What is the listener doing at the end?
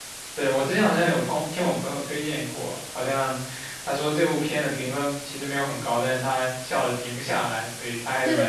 taking over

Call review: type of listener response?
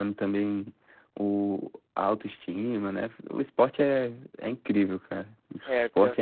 taking over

